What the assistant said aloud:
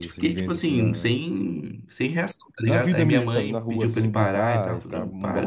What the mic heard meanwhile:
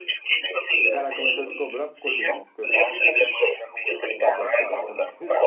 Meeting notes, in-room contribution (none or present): present